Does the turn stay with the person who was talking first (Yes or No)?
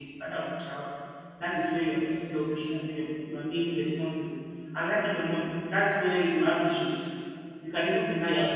Yes